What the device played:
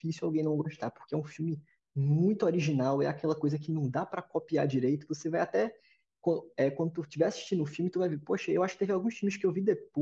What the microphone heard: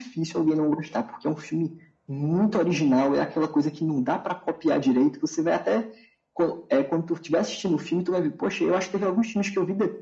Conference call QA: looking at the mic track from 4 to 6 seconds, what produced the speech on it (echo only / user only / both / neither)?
echo only